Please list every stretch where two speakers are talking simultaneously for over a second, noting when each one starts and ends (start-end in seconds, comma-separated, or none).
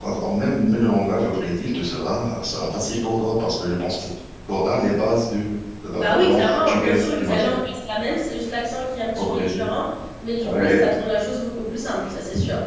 5.9-7.5